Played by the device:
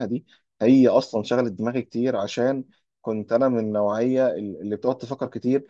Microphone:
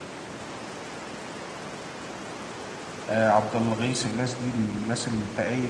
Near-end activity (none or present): present